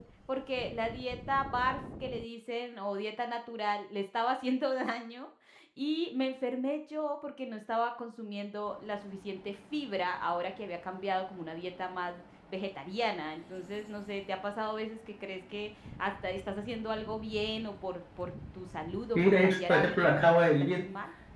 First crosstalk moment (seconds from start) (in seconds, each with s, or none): 19.1 s